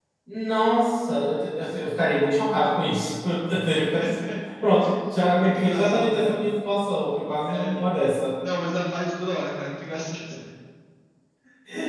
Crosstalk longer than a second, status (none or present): present